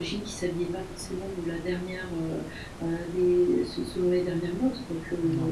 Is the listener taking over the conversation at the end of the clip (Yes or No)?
No